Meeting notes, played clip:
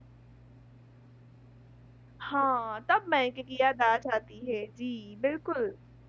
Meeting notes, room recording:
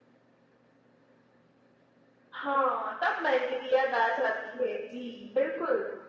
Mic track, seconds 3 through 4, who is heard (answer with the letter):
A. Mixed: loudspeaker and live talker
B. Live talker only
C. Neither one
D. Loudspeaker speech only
D